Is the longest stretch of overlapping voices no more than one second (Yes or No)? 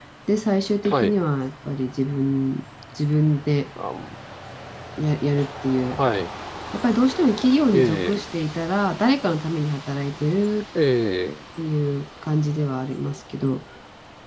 Yes